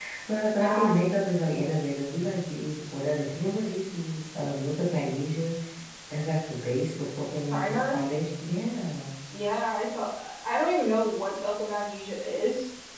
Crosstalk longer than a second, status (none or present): none